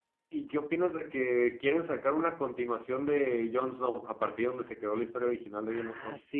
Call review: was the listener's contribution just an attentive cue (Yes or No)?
No